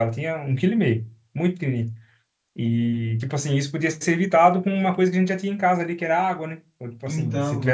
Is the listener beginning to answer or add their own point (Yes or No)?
No